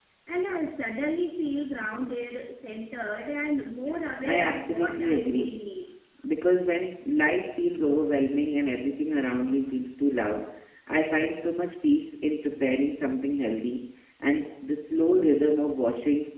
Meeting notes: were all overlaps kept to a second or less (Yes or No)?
No